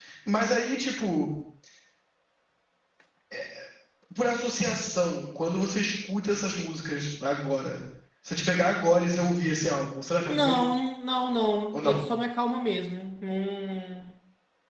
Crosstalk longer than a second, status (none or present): none